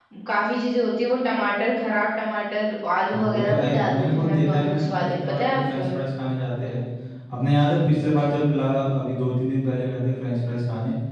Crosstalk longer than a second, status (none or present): present